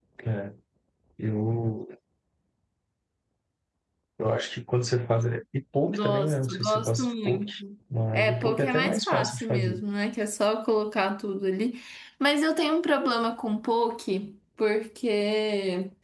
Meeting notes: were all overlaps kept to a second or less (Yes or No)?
No